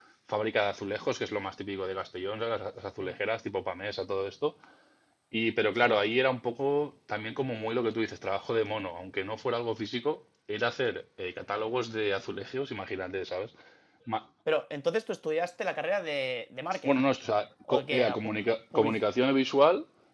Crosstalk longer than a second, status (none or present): none